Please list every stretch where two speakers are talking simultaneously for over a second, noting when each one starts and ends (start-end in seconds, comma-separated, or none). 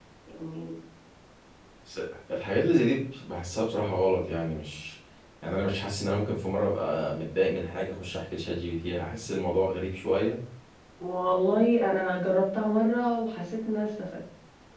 none